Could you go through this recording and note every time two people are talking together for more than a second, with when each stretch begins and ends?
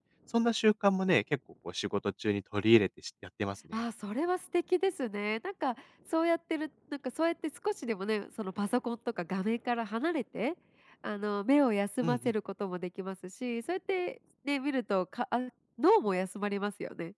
none

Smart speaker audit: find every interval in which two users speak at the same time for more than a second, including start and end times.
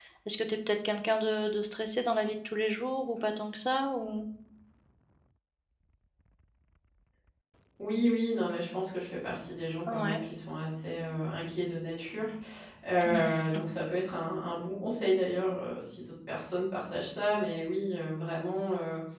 none

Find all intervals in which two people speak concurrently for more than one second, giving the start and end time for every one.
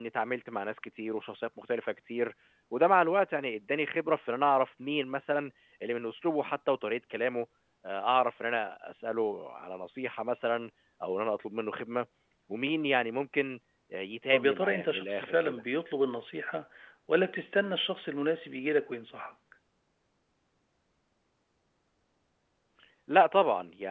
14.3-15.6

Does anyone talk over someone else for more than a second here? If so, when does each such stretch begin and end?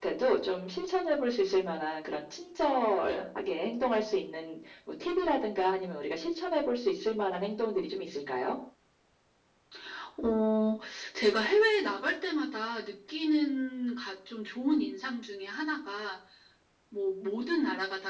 none

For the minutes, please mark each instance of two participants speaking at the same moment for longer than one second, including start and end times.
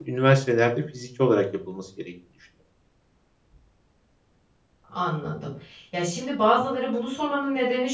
none

